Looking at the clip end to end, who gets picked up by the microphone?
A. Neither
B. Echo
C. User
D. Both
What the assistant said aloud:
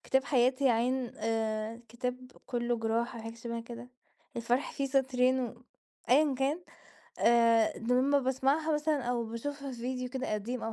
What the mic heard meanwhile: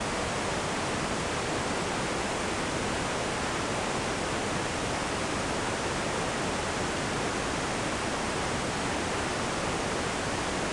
A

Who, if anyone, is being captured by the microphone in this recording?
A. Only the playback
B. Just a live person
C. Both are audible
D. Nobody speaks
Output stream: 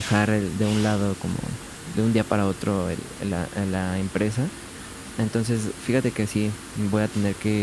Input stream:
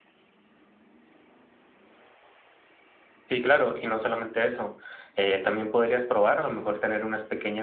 B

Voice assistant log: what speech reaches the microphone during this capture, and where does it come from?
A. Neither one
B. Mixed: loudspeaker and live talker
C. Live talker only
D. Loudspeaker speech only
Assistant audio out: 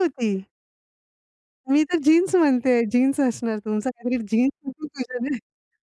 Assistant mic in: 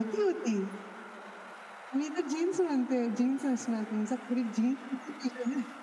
D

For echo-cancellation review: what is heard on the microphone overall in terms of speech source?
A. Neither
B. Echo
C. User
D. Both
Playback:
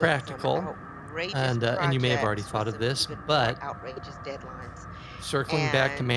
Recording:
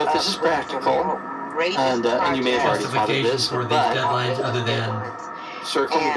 D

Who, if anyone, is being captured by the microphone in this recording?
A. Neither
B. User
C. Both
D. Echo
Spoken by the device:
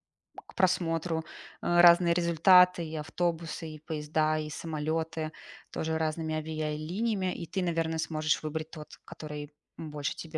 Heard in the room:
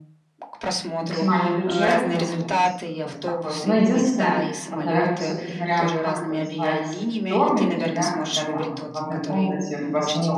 C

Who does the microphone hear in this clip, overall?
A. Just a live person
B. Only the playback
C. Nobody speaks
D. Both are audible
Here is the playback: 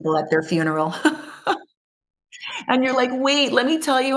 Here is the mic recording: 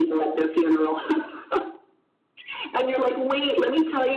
B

